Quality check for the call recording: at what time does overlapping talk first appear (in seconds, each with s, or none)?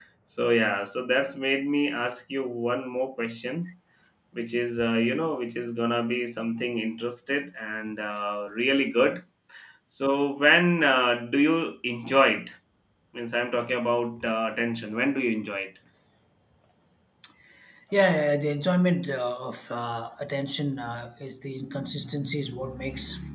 none